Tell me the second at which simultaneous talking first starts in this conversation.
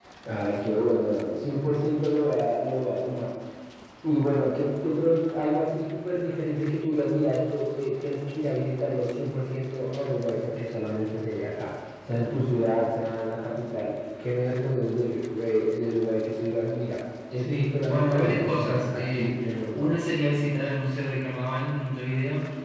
17.4 s

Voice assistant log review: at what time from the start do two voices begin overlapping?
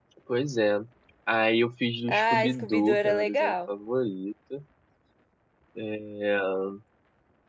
2.1 s

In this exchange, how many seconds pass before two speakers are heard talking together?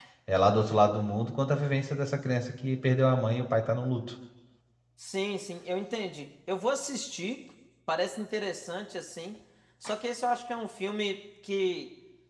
none

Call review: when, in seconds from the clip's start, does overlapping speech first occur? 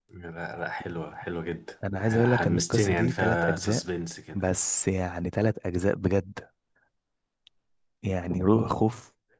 1.8 s

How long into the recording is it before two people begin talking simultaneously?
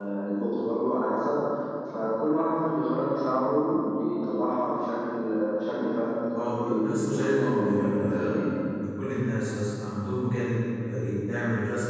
6.3 s

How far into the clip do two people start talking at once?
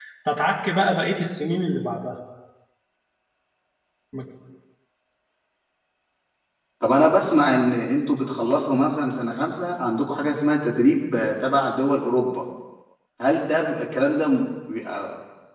none

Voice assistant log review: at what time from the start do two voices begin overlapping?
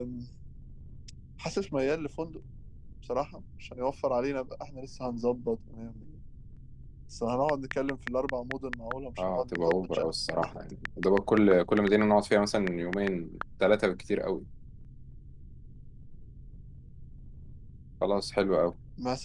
9.2 s

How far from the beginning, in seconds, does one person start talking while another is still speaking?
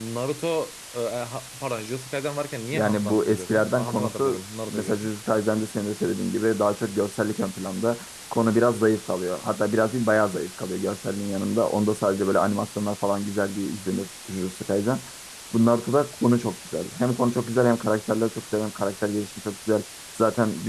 2.7 s

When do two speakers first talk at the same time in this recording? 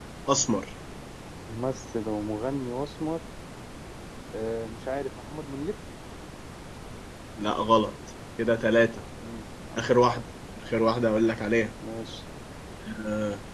none

